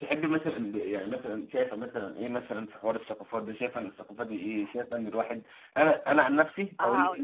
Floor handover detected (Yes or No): No